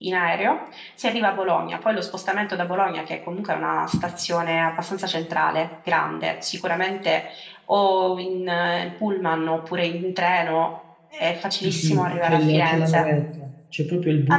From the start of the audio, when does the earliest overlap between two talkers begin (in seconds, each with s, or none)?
11.6 s